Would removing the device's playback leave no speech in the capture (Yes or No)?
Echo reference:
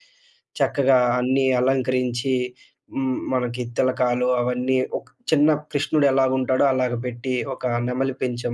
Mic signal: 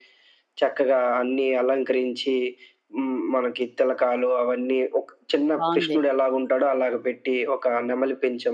No